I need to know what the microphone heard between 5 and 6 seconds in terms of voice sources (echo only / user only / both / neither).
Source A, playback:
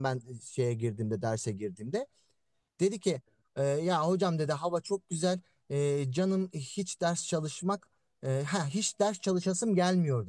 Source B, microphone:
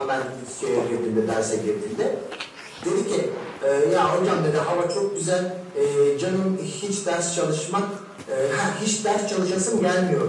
echo only